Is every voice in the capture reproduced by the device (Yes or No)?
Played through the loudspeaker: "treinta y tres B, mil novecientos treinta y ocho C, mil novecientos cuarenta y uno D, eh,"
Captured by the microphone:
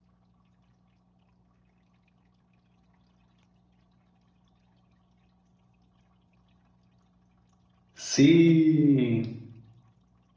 No